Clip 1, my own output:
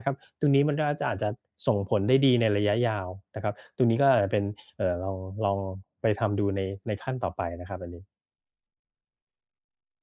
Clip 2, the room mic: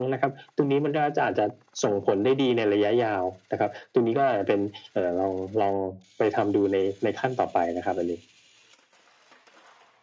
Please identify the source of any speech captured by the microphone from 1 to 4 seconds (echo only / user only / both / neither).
echo only